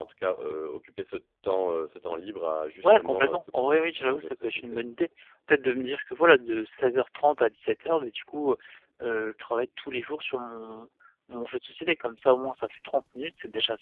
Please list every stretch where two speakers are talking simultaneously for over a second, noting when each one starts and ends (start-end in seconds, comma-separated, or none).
2.8-4.8